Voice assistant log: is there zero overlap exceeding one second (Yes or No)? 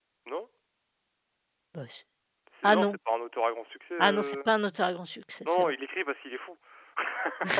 Yes